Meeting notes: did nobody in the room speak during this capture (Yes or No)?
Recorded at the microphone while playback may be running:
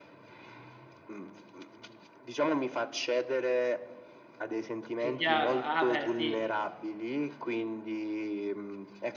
No